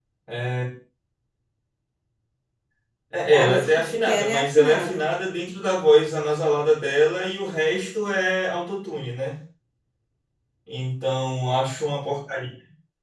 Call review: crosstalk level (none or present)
present